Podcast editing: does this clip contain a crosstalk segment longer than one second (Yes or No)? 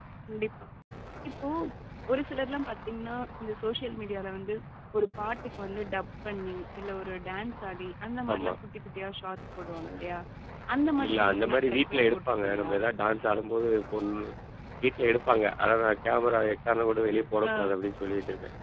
Yes